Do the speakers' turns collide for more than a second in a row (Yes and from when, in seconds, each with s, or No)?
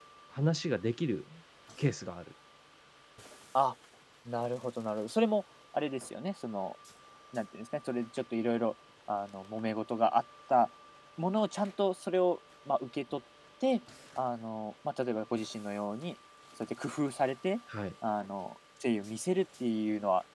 No